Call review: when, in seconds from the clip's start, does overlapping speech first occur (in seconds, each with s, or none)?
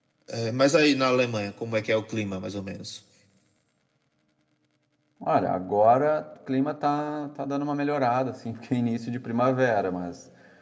none